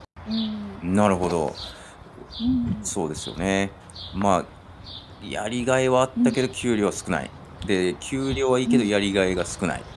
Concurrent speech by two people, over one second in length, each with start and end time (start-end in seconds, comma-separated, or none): none